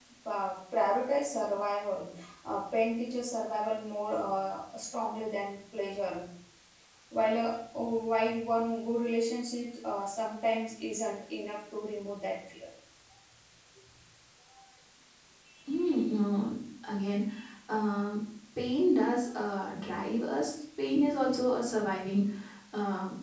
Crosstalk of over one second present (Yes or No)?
No